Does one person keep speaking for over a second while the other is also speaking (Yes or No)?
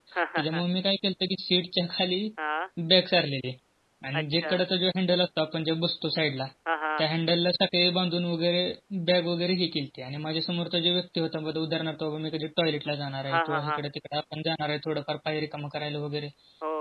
No